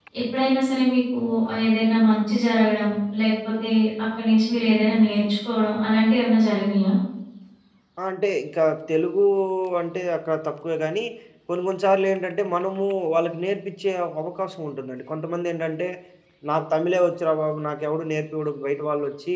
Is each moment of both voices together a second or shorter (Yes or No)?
Yes